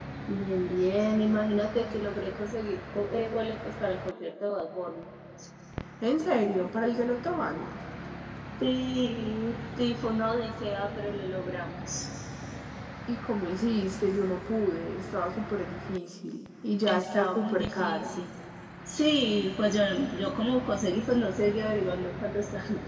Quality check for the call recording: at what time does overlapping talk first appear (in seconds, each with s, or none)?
16.9 s